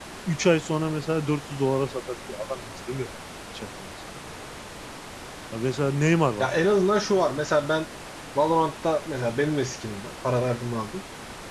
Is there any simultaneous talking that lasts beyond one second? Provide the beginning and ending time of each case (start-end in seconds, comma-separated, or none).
none